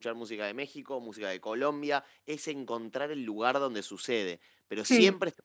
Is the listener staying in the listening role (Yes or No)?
Yes